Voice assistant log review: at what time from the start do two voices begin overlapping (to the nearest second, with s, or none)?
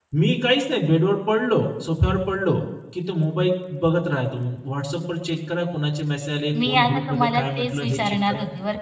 7 s